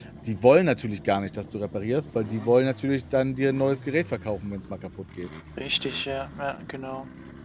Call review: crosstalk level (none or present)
none